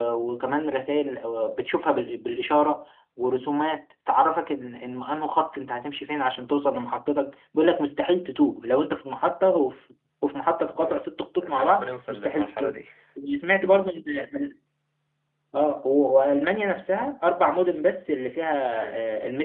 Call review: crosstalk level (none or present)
present